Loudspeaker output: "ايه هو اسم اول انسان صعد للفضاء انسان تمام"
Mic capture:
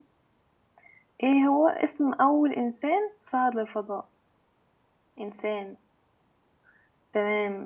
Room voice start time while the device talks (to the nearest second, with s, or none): none